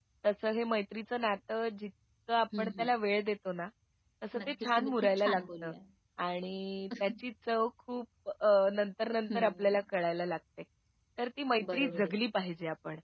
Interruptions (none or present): present